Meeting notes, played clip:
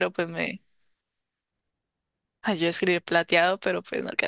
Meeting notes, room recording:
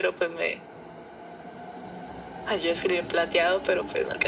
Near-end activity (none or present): none